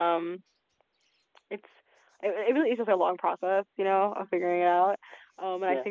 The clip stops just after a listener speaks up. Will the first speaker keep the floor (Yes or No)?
Yes